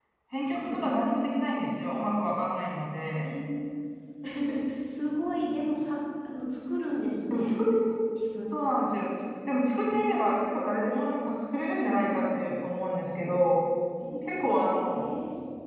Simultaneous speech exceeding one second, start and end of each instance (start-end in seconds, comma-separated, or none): none